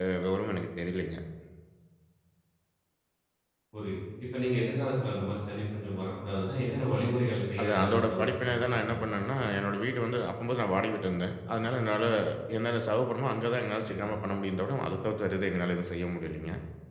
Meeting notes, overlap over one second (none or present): present